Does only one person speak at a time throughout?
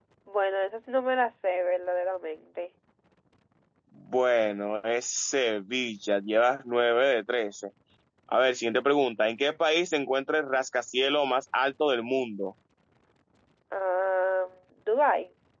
Yes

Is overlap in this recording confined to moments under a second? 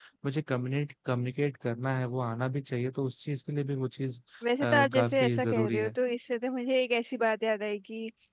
No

